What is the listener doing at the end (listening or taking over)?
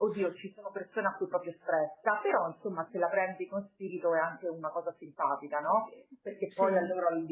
listening